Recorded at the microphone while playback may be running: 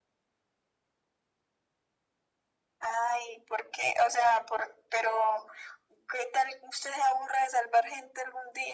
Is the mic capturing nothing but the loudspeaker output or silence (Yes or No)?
Yes